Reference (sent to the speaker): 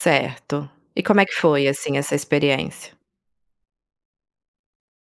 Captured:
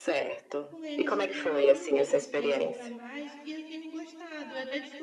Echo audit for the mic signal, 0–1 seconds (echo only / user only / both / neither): both